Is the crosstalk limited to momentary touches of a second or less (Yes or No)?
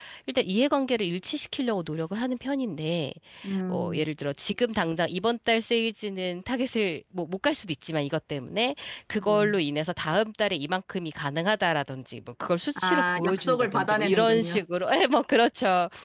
No